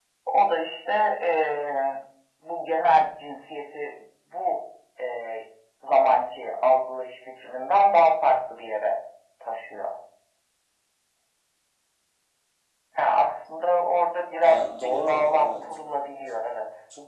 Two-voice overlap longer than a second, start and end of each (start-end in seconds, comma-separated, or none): 14.4-15.6